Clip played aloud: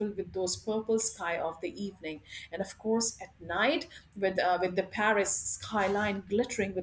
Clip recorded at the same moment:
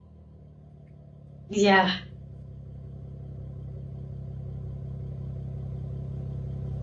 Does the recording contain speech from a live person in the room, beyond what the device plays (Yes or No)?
Yes